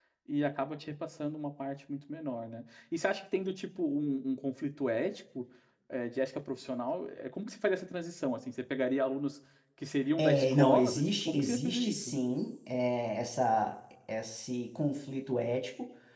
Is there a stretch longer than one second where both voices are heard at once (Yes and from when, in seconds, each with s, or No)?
Yes, from 10.2 s